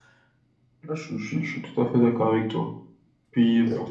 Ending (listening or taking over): listening